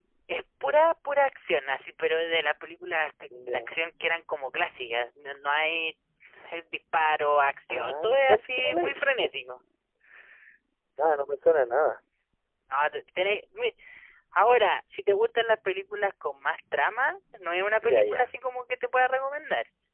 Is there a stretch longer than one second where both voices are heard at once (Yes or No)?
Yes